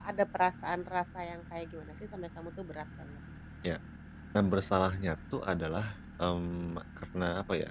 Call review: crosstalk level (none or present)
none